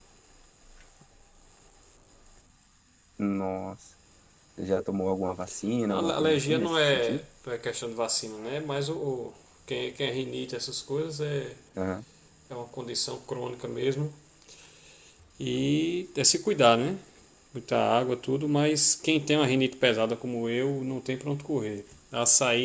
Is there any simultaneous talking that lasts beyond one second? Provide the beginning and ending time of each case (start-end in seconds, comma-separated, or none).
5.9-7.2